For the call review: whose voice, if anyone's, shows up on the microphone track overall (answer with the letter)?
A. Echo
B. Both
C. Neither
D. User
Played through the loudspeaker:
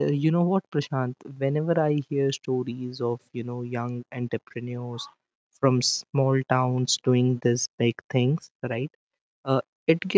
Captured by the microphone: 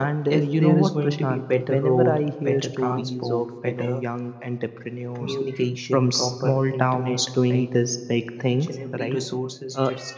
B